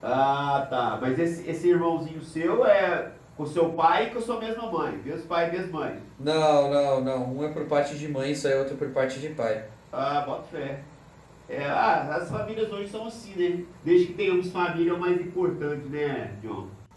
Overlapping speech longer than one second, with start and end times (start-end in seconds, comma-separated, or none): none